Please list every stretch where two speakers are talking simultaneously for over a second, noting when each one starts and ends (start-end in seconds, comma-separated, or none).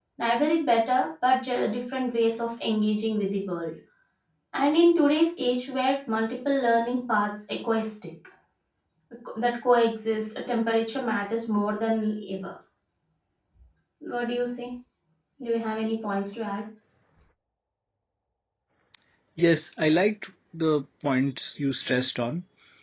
none